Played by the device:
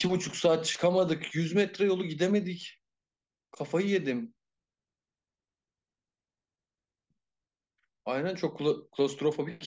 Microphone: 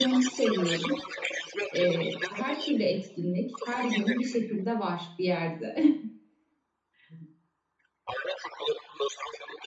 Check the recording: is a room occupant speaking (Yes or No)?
Yes